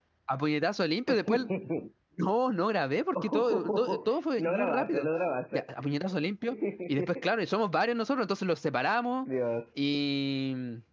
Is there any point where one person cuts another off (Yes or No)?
Yes